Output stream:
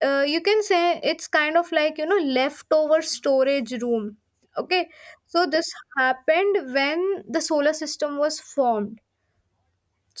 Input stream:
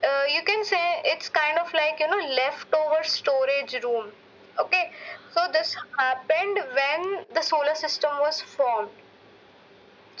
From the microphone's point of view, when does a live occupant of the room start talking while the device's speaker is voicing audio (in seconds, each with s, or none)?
none